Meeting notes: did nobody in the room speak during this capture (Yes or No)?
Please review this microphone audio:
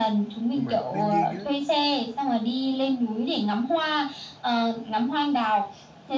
No